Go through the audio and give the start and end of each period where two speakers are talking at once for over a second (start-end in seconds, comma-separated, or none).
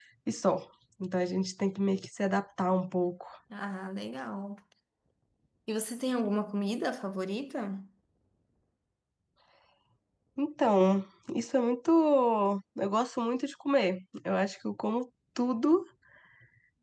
none